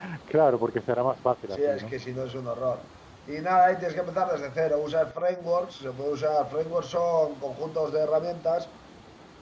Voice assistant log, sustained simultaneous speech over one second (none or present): none